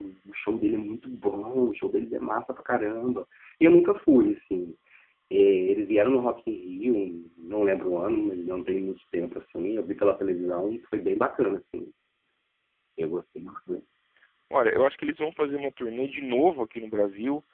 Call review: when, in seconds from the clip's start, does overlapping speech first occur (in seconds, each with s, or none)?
none